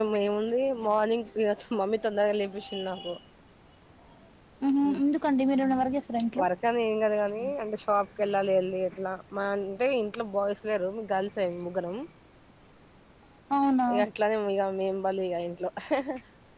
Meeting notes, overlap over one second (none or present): none